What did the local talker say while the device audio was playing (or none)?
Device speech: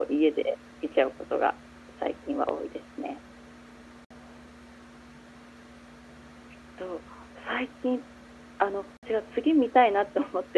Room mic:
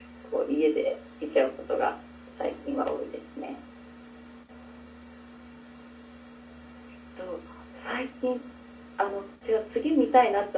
none